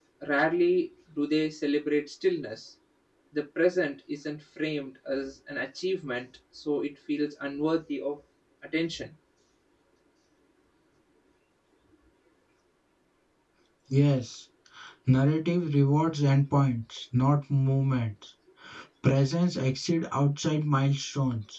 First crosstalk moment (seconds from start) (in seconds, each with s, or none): none